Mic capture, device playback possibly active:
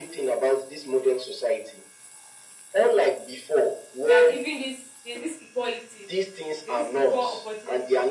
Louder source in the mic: echo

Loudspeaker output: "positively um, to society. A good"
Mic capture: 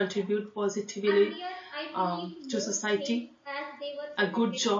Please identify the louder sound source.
echo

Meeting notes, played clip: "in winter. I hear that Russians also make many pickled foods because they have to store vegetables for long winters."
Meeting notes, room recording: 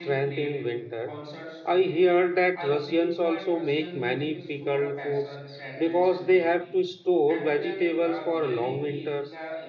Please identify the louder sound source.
echo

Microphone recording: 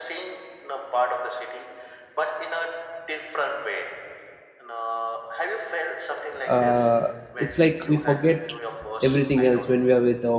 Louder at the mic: user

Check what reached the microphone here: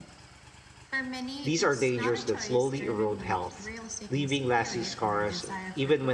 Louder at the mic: user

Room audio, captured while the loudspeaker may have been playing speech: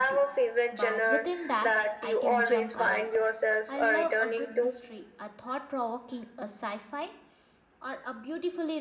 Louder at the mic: echo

